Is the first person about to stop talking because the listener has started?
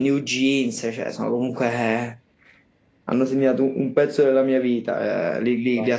No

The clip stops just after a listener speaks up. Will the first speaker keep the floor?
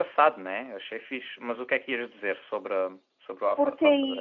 No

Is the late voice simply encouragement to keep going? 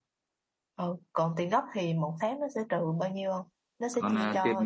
No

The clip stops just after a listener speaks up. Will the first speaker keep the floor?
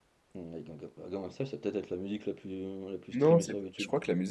No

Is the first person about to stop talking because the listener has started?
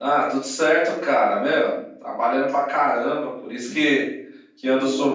No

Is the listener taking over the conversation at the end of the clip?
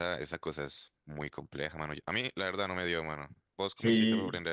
Yes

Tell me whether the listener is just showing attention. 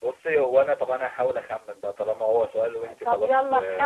No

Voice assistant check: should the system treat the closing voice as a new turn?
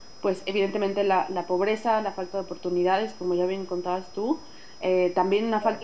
No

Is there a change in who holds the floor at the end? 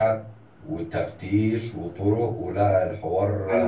Yes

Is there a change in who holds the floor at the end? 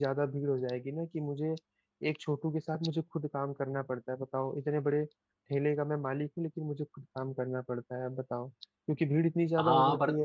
Yes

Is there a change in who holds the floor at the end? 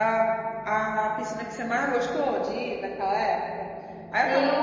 No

